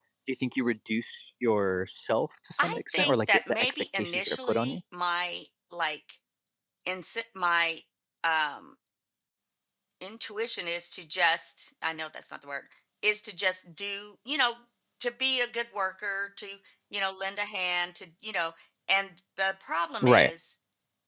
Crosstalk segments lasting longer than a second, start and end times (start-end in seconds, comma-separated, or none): 2.6-4.8